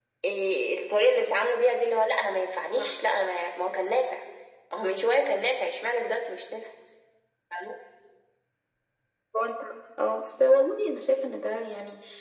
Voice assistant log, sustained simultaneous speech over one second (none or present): none